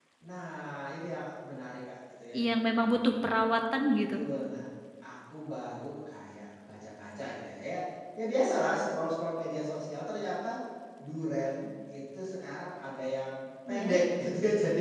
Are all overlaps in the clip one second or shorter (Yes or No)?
Yes